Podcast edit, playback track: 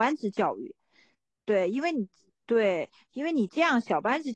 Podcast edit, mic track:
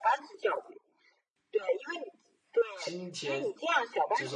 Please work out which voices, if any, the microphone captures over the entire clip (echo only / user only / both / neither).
both